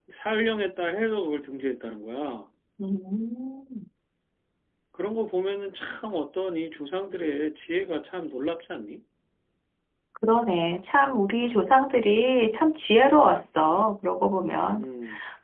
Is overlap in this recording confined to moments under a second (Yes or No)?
Yes